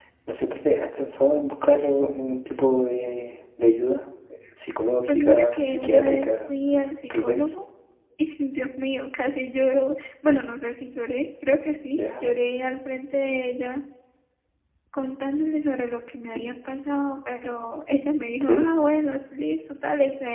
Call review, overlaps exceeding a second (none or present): present